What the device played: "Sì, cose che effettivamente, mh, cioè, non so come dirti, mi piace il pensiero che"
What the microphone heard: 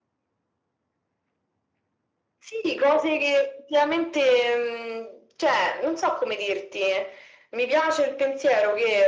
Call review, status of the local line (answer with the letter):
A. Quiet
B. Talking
A